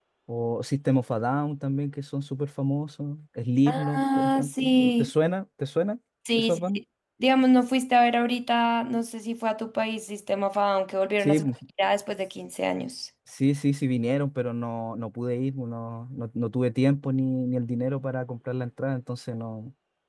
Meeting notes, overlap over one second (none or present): present